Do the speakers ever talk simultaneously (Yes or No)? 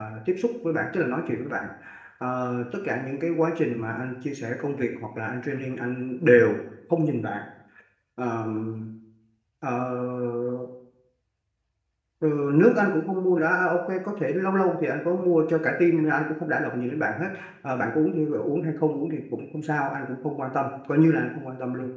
No